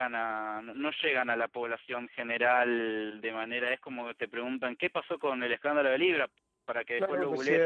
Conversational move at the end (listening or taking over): taking over